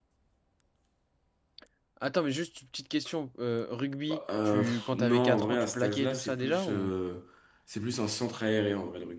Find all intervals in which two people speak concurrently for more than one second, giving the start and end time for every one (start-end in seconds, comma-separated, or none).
4.1-6.9